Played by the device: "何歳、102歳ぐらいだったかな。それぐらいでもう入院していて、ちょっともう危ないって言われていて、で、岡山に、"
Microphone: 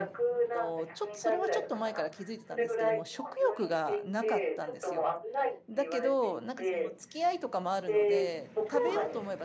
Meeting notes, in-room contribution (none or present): present